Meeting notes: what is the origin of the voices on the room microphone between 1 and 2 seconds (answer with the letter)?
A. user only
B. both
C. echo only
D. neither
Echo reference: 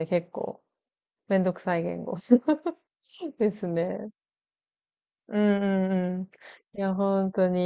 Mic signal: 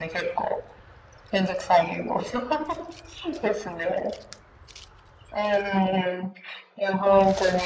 C